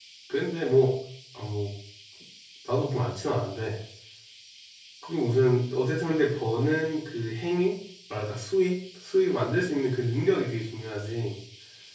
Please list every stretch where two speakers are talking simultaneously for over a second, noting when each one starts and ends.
none

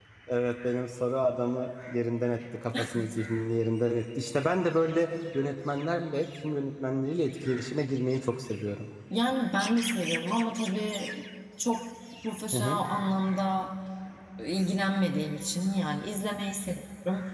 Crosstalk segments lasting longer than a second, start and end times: none

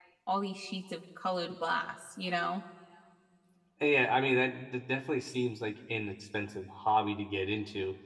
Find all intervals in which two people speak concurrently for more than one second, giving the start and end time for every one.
none

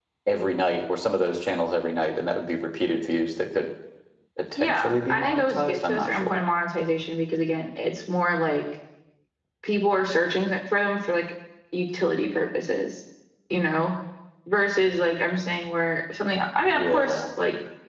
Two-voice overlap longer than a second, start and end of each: 4.6-6.4

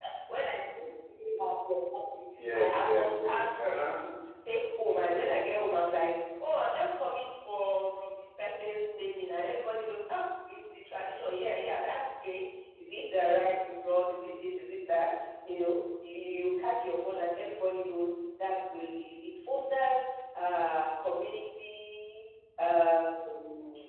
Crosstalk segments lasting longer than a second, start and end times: 2.5-4.0

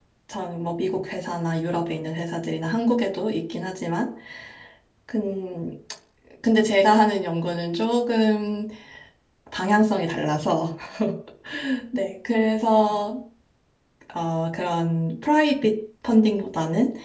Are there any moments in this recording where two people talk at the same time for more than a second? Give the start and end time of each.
none

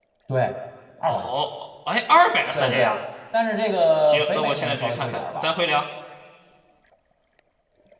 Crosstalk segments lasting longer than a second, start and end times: 4.0-5.5

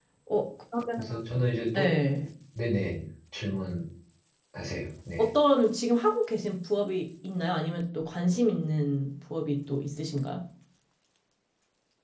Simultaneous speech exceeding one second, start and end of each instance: none

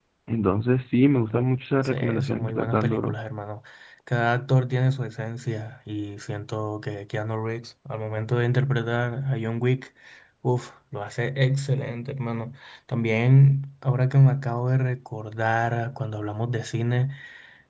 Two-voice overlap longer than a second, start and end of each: 1.8-3.1

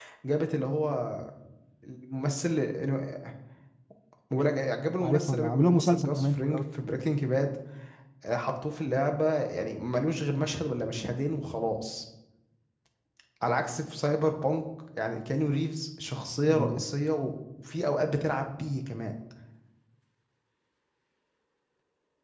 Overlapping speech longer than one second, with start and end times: 5.0-6.6

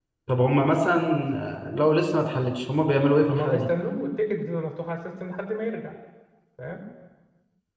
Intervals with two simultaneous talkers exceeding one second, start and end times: none

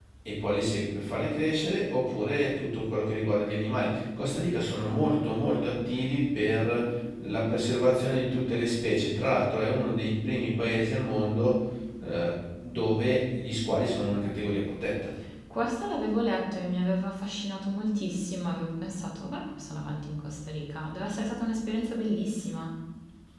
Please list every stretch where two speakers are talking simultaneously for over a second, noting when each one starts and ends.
none

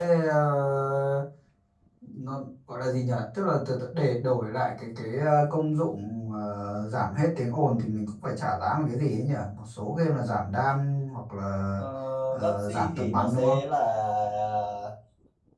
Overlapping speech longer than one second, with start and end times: 12.3-13.6

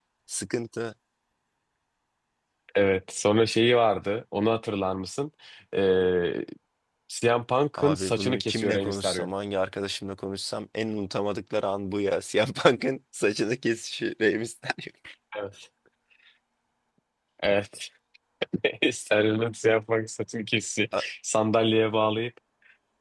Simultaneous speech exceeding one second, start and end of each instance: 7.8-9.3

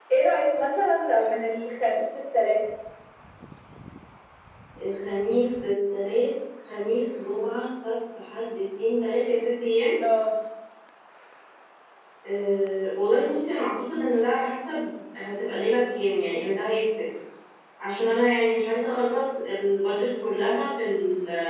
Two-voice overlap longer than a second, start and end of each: none

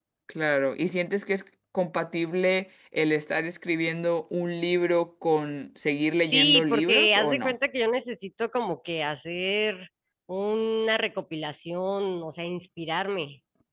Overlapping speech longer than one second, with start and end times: 6.2-7.5

